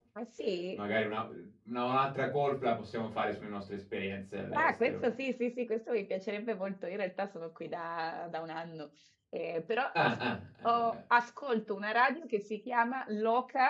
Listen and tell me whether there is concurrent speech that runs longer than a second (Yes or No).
No